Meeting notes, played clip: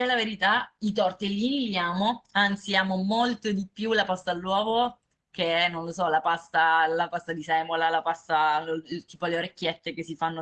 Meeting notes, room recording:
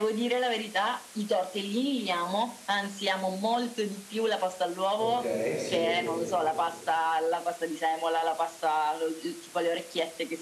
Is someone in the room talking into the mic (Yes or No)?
Yes